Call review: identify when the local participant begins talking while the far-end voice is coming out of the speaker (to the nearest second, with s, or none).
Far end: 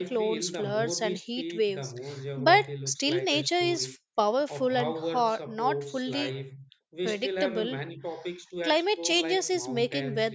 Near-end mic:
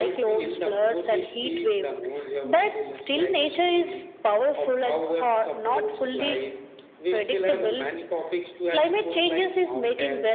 none